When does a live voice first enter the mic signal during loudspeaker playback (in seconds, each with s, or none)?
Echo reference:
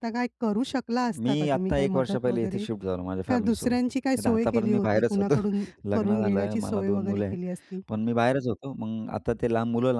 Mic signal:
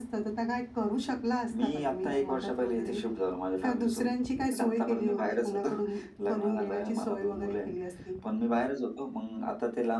none